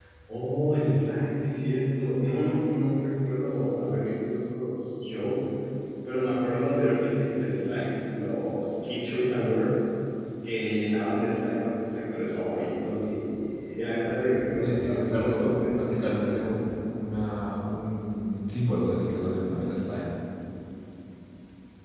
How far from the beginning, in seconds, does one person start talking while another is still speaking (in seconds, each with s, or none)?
14.5 s